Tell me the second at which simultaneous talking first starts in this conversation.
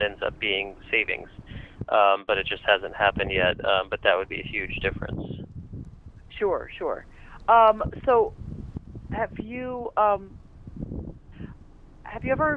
none

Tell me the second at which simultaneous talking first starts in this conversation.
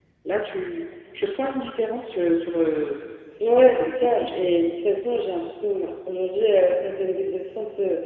3 s

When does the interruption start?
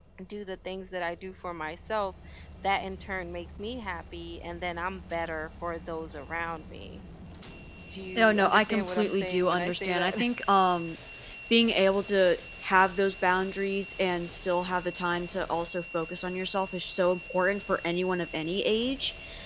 8 s

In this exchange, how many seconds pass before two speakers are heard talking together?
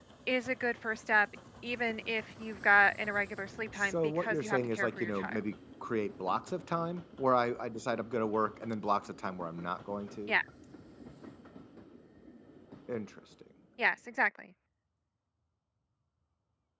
4 s

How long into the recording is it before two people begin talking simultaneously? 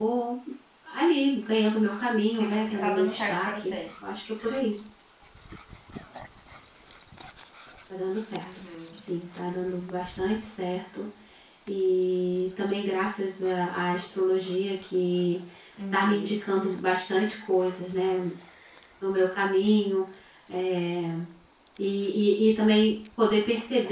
2 s

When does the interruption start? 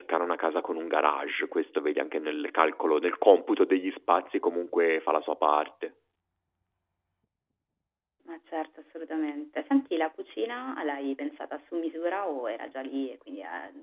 none

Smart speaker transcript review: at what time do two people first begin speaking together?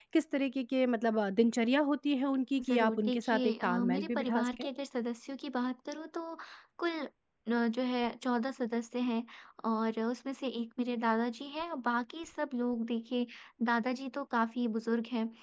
3 s

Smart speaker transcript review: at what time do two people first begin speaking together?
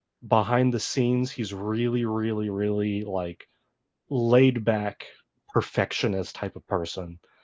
none

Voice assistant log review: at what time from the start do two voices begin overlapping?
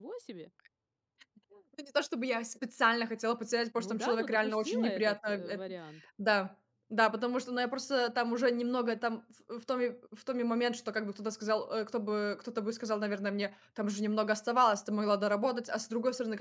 4 s

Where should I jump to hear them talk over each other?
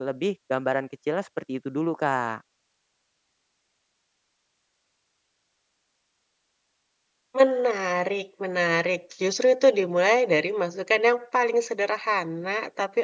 none

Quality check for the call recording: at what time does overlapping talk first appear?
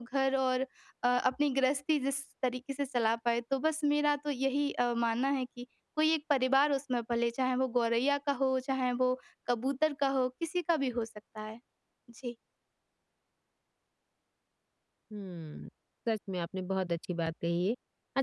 none

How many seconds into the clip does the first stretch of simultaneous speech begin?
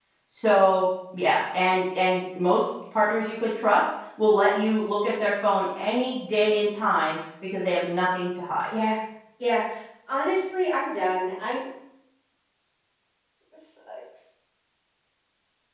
none

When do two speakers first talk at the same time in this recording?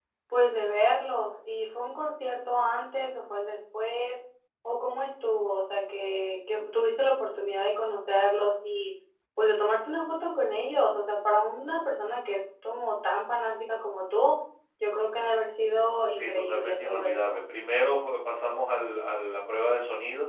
16 s

